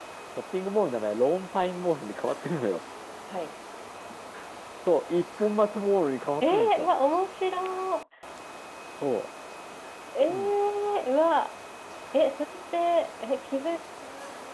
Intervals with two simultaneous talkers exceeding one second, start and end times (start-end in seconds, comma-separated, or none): none